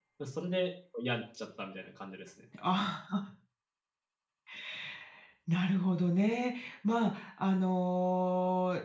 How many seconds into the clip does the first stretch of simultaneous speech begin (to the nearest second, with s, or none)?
none